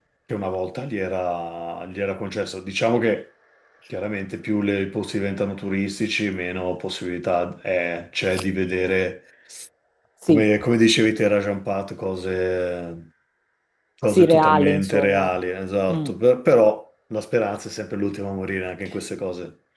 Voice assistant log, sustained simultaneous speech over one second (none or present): present